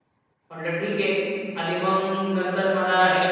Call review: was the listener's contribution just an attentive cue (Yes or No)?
Yes